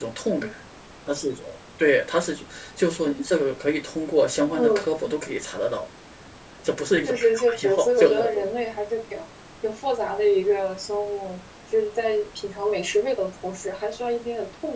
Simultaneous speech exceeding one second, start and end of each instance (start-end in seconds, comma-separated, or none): 7.0-8.5